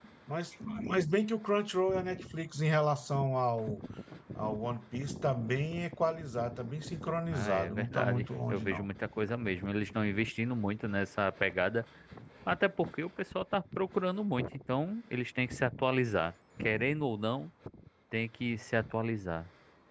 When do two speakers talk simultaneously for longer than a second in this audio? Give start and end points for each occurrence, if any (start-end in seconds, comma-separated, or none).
7.3-8.9